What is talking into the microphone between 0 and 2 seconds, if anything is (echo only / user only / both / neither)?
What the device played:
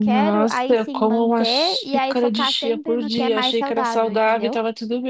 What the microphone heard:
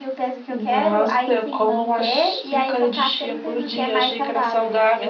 echo only